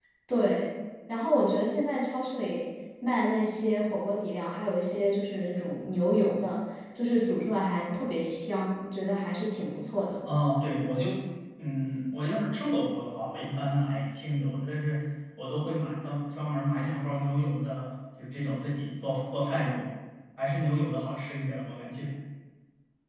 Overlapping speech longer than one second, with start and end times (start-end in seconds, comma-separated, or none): none